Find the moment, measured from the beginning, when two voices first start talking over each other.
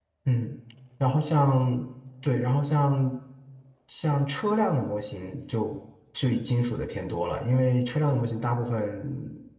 none

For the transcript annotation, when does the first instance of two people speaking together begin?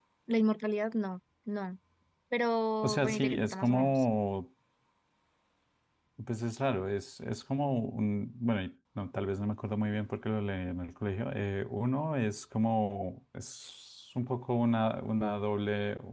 2.8 s

